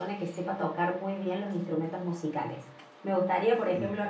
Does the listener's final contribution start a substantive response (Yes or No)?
No